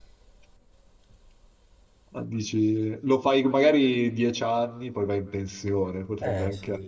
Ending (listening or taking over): listening